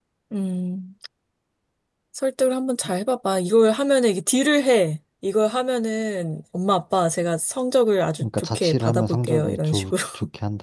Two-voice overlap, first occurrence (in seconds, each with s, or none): 8.2 s